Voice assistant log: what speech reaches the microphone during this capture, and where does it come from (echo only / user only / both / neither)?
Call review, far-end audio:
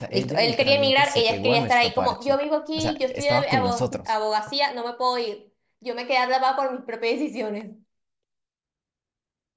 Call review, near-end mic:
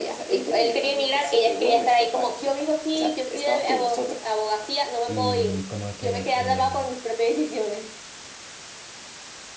both